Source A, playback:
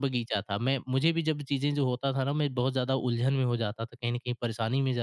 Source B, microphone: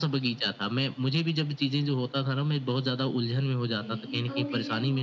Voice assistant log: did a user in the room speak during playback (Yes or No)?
Yes